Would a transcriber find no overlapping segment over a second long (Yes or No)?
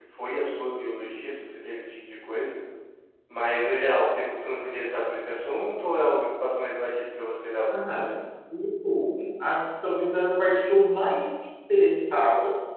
Yes